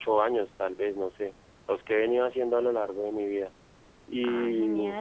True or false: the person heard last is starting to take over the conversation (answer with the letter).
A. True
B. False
A